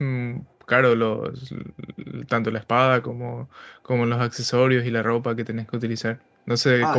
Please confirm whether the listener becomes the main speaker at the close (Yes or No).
Yes